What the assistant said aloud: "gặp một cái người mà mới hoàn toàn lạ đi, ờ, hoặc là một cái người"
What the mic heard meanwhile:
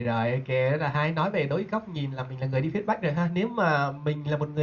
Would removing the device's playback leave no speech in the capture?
No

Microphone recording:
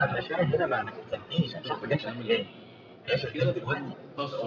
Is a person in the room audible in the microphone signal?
Yes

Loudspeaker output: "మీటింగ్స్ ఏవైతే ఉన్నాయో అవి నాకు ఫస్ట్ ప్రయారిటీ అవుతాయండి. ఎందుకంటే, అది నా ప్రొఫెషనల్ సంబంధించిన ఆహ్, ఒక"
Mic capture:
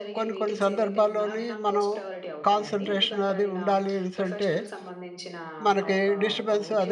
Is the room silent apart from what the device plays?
No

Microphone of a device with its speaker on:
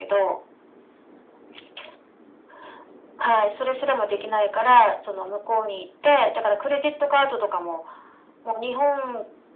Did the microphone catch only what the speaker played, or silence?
Yes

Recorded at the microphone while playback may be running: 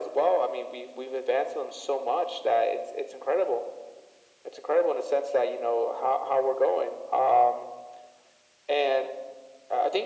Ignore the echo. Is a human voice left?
No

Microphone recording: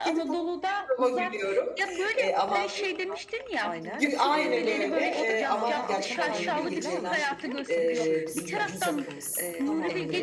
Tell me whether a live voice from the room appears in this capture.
Yes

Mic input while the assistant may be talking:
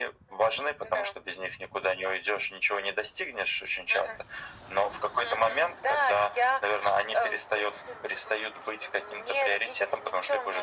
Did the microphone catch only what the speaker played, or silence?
Yes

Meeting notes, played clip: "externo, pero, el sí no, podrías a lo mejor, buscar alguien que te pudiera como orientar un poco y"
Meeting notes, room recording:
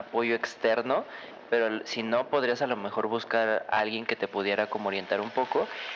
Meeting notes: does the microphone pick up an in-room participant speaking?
No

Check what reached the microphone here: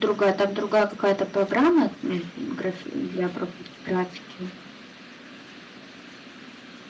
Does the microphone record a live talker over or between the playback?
Yes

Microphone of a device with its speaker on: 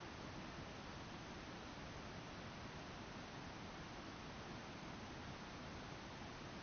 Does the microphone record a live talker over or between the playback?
No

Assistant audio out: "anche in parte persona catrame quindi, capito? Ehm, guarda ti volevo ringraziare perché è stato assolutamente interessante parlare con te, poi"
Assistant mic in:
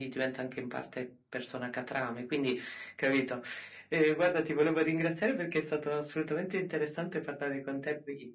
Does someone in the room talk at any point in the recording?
No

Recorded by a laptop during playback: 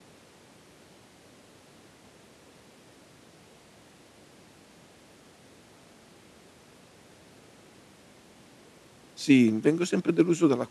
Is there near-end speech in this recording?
Yes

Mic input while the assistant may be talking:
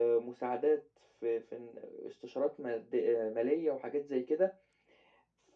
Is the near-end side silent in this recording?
Yes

